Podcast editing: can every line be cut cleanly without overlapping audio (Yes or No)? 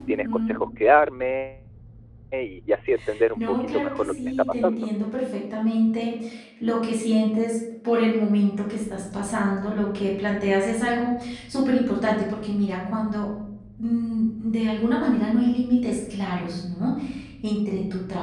No